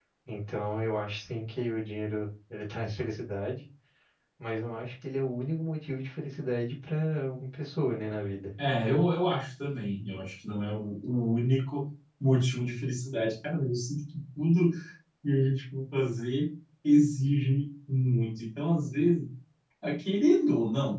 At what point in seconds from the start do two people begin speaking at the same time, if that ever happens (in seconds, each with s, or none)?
none